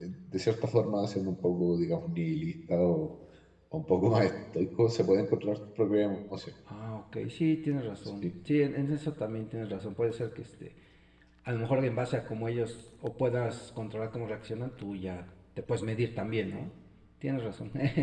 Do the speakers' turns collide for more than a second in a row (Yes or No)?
No